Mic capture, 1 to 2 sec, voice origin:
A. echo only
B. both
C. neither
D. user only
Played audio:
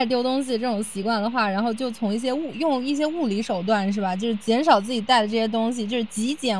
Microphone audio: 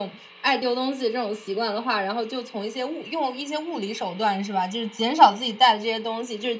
A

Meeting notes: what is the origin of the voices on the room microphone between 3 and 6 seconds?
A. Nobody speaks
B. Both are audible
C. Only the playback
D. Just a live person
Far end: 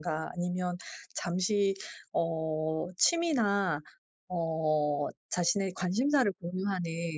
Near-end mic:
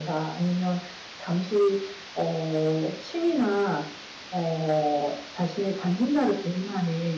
C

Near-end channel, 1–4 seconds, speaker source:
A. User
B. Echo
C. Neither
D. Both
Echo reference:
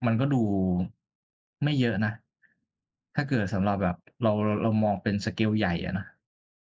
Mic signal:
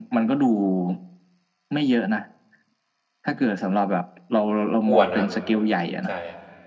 B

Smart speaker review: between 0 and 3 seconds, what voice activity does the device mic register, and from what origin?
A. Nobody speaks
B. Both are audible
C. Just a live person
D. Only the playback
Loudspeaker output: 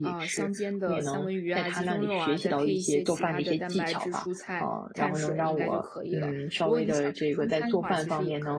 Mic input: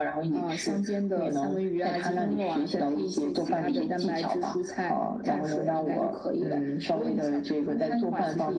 D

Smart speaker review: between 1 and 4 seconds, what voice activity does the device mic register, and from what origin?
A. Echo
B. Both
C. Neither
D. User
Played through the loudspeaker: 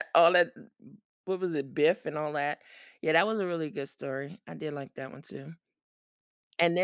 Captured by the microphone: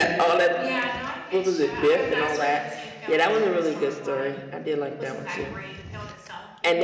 B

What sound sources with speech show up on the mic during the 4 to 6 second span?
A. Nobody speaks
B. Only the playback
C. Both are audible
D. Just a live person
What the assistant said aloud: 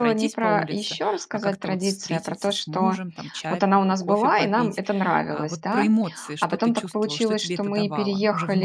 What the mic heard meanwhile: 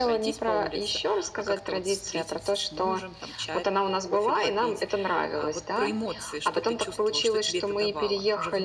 B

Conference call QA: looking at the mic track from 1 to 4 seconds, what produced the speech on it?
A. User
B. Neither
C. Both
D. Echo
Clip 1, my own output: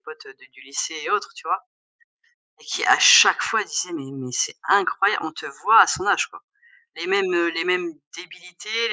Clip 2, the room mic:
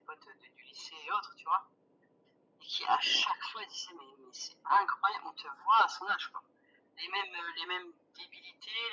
D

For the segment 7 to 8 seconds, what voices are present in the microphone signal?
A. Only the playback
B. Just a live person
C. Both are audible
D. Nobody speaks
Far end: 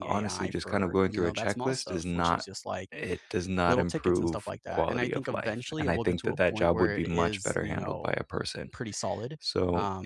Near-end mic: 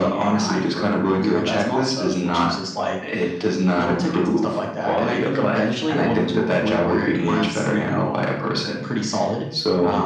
A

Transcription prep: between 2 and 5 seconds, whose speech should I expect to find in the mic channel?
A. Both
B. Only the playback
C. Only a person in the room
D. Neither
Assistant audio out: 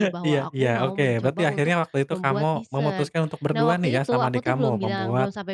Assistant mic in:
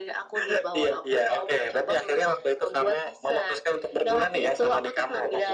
B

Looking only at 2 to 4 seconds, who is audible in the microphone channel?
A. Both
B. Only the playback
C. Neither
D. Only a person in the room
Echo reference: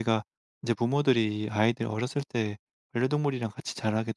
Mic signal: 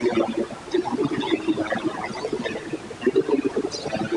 B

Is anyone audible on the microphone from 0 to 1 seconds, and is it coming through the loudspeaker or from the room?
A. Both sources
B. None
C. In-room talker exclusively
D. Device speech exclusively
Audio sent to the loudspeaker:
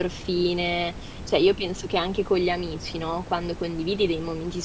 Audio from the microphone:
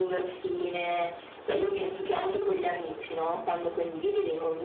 D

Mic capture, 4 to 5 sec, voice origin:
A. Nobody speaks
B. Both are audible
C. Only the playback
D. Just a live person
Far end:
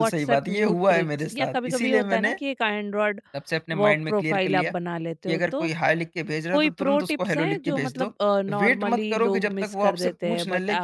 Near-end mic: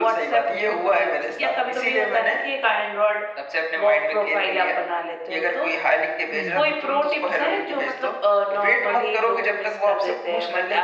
C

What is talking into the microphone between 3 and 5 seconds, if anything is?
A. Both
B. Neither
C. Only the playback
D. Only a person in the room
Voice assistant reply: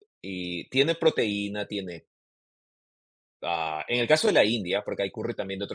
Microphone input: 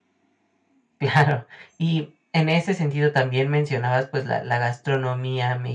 D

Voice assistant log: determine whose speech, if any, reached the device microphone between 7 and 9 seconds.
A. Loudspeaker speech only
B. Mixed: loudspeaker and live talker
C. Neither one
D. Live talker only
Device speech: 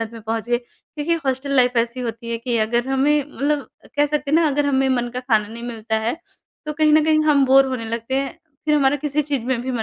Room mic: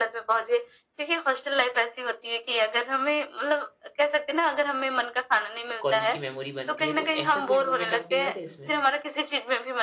B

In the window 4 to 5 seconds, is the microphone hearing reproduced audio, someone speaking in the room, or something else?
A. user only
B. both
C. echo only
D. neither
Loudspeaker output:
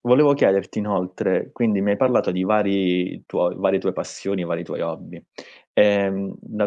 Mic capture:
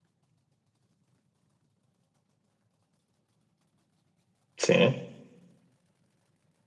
A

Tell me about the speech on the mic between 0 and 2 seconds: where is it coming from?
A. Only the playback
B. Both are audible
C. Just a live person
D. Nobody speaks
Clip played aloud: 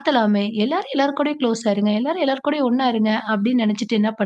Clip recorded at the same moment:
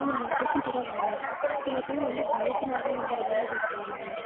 B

